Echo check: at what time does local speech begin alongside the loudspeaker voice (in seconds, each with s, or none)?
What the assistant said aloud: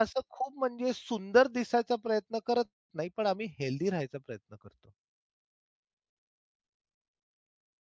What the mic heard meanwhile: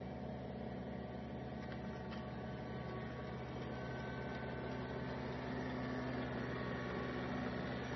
none